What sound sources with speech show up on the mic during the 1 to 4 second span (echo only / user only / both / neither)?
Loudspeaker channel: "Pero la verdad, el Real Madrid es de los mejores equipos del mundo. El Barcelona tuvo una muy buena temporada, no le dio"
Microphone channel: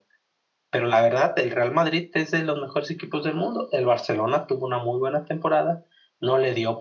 echo only